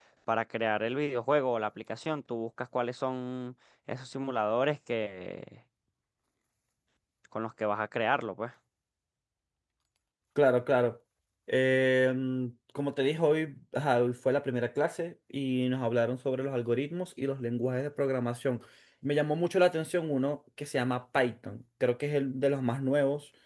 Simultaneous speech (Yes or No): No